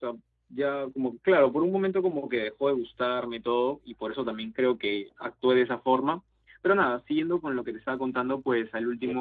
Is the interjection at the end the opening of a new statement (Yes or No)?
No